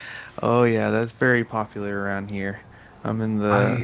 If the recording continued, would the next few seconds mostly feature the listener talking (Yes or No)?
No